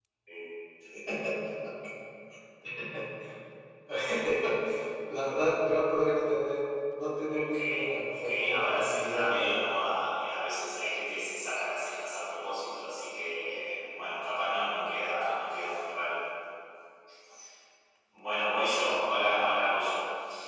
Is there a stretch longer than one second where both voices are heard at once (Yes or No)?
Yes